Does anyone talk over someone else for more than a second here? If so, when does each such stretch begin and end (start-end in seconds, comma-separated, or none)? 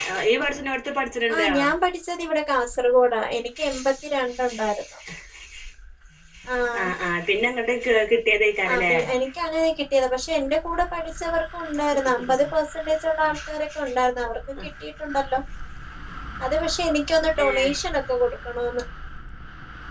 none